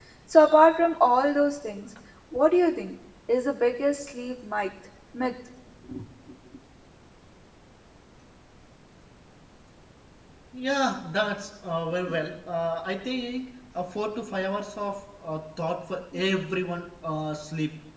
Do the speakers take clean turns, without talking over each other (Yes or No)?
Yes